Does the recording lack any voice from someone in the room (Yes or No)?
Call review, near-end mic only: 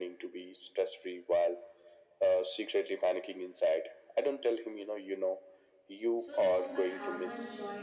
No